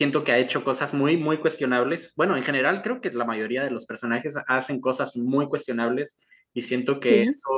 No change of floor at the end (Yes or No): Yes